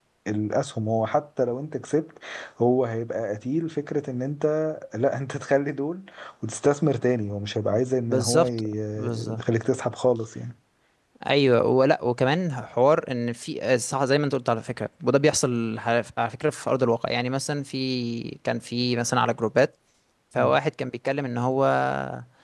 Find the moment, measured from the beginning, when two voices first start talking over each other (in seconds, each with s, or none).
8.1 s